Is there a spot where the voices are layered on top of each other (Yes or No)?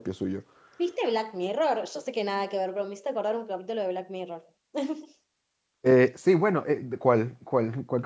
No